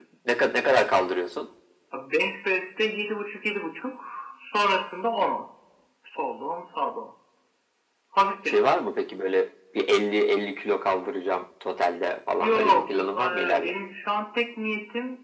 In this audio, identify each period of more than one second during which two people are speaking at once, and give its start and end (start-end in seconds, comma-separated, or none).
12.4-13.8